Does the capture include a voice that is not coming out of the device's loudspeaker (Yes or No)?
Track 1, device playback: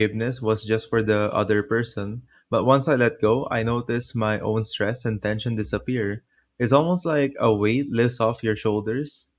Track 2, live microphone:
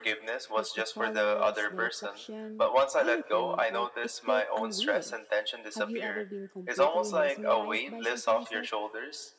Yes